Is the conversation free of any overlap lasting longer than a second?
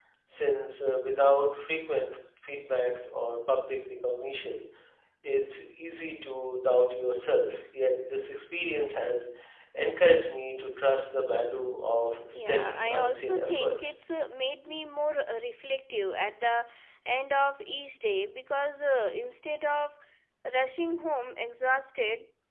No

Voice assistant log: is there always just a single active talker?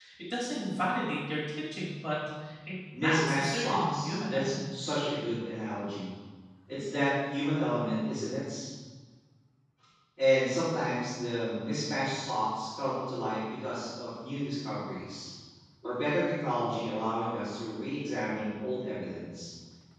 No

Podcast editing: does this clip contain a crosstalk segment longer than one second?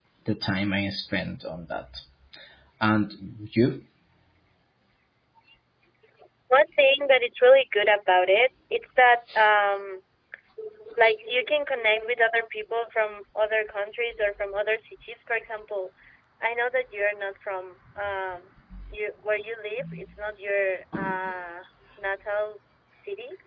No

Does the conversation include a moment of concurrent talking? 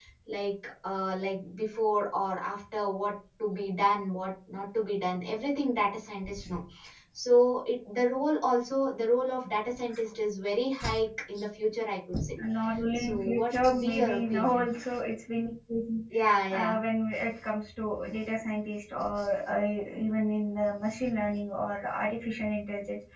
Yes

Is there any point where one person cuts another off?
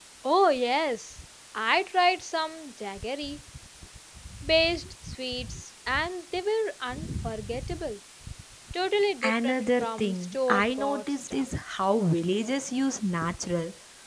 Yes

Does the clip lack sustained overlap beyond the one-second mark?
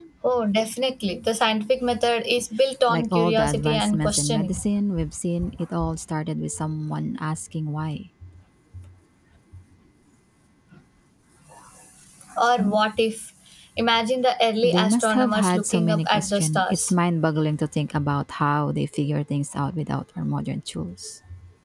No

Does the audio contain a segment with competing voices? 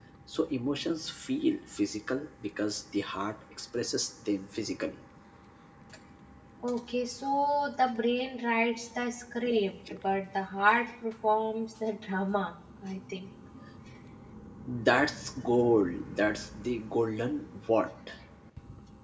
No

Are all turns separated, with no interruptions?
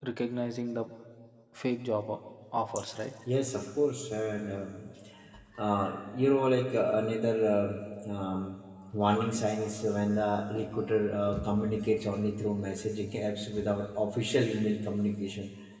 Yes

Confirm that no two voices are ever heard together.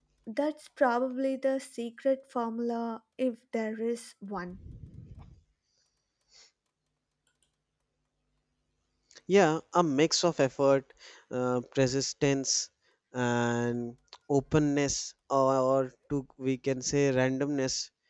Yes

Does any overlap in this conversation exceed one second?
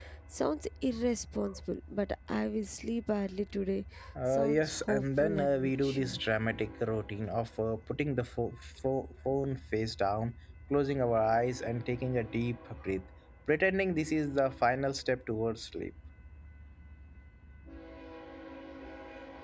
Yes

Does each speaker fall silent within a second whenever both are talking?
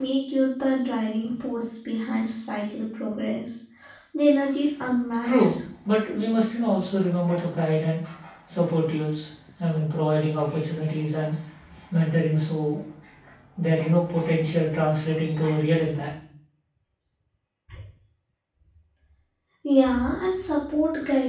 Yes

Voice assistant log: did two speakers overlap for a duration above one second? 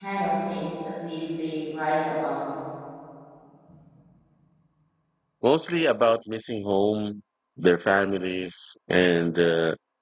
No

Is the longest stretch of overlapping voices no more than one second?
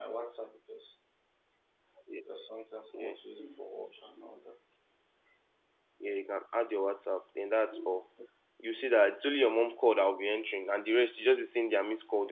Yes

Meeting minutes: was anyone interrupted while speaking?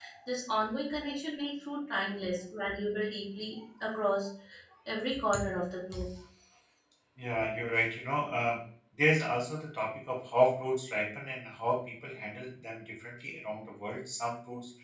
No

